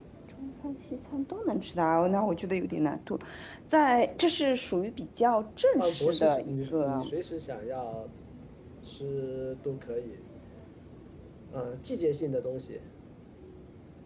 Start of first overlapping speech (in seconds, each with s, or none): 5.8 s